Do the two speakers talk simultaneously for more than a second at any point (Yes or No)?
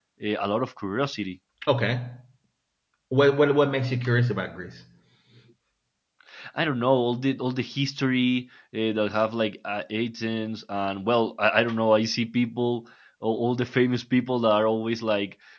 No